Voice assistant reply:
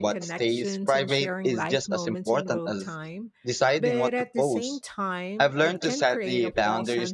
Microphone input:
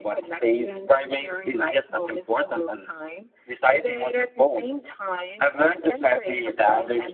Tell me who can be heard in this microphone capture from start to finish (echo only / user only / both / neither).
echo only